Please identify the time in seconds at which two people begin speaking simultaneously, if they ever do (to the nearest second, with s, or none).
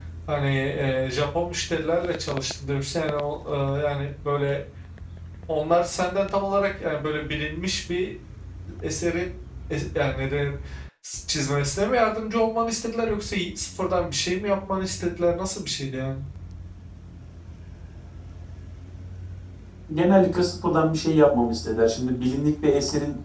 none